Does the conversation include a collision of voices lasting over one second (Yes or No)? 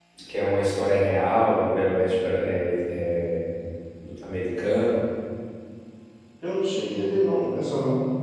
No